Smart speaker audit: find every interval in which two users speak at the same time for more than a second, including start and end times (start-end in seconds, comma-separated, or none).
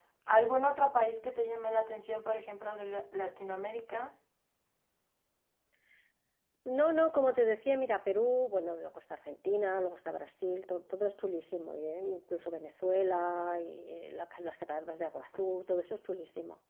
none